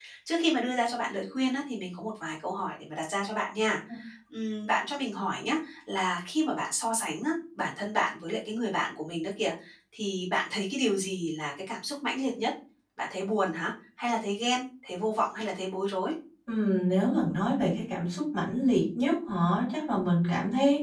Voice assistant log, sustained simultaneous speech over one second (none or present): none